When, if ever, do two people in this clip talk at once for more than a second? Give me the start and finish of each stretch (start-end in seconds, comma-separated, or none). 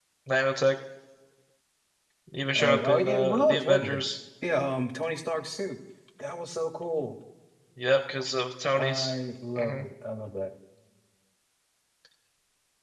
2.5-4.0